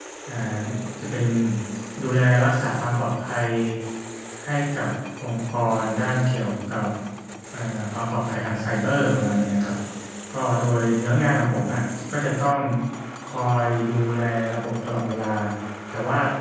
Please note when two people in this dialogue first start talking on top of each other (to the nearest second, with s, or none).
none